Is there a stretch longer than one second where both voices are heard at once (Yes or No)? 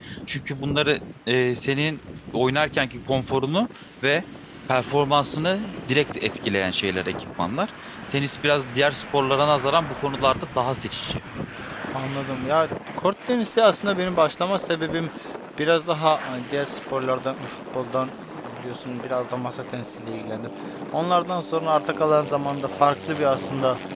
No